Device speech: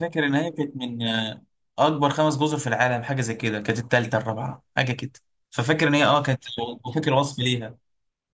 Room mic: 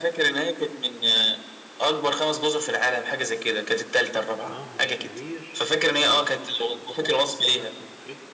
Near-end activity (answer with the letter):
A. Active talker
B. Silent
A